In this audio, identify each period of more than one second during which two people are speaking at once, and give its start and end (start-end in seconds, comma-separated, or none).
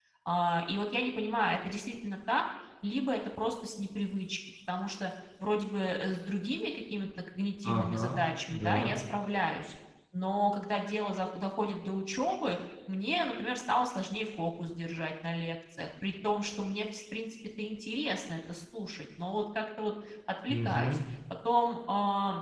7.7-9.0